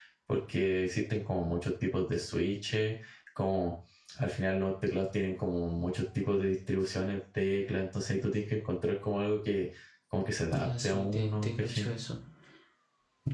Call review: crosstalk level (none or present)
present